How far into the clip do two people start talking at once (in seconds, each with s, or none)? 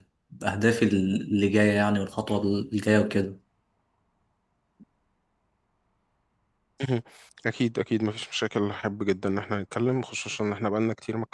none